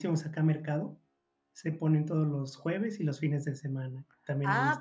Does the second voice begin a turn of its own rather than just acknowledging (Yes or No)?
Yes